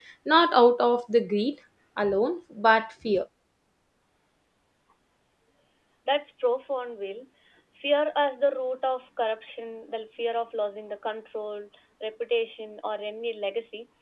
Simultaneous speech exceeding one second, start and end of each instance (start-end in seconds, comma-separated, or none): none